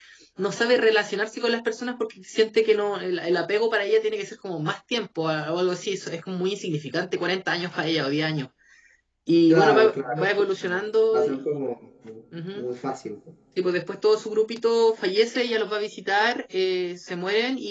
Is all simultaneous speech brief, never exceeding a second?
No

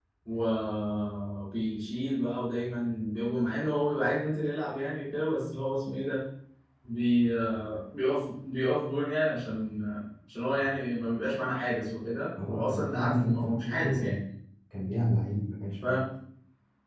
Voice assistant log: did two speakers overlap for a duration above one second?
Yes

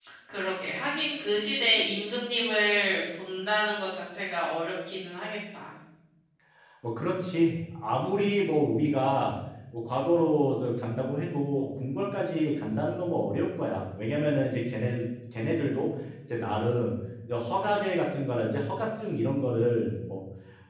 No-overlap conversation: Yes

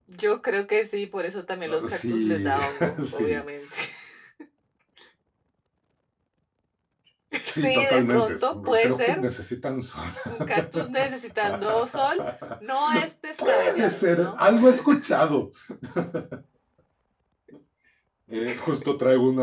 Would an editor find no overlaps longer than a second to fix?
No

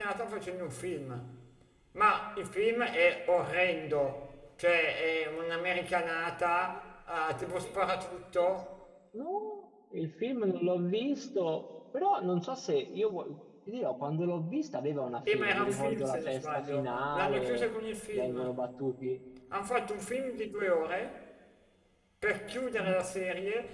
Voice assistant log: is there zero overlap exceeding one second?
No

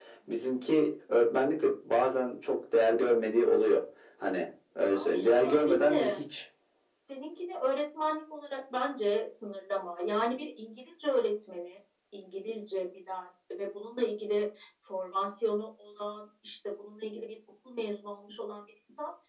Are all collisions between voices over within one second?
No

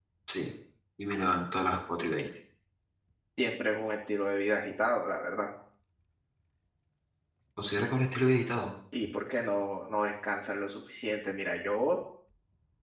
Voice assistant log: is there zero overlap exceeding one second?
Yes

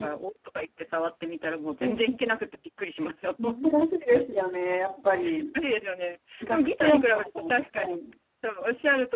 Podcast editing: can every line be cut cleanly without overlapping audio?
No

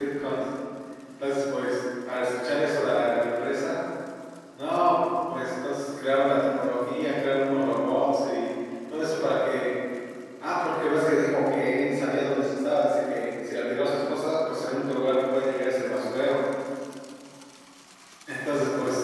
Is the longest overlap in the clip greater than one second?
No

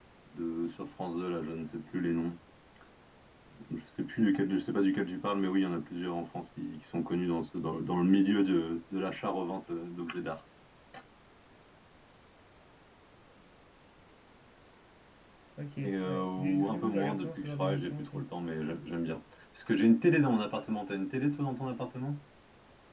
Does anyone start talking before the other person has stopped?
Yes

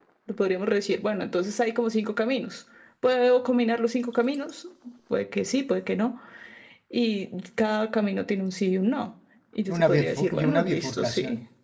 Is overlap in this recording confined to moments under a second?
No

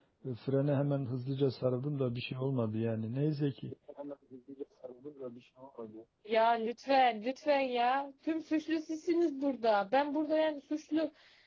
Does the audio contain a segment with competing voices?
No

